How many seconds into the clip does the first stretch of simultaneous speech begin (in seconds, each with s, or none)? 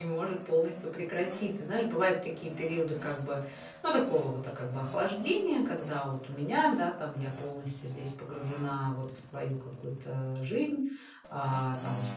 none